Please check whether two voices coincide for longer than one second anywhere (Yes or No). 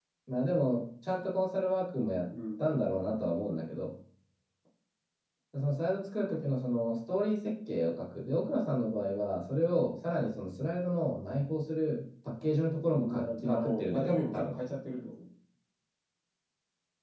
Yes